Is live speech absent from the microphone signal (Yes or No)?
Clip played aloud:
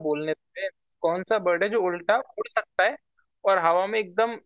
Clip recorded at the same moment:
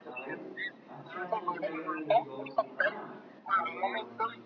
No